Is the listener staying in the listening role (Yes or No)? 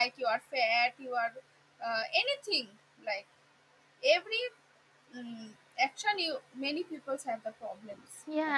No